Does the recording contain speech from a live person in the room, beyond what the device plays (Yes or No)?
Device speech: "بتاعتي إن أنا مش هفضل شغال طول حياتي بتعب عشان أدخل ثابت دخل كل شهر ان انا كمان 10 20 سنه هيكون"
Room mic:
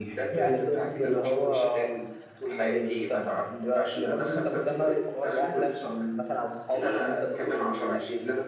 Yes